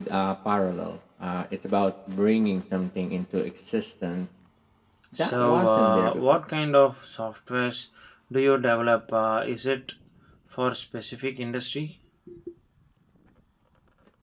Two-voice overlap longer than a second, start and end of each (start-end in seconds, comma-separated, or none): 5.2-6.4